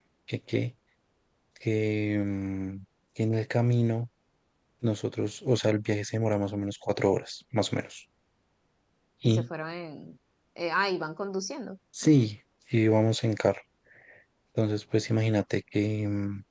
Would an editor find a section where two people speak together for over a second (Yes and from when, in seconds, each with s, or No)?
No